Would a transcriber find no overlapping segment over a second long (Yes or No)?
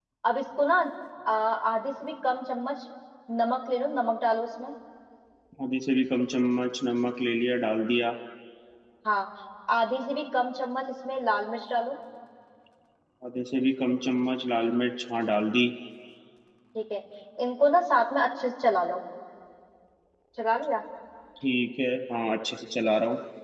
Yes